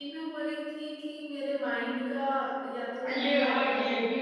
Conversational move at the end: taking over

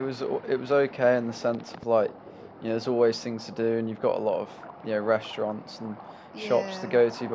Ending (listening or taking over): listening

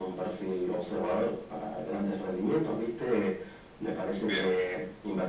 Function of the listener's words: listening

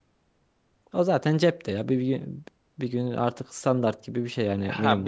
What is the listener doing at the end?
taking over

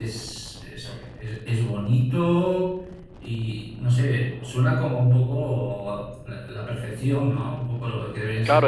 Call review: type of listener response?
taking over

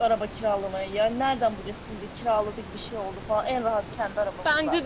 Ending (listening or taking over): taking over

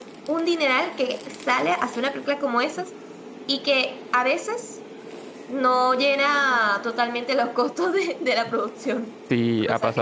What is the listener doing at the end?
taking over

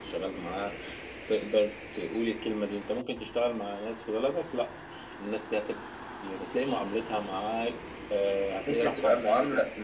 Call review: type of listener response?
taking over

